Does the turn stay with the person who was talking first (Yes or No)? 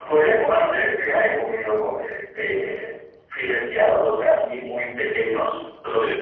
Yes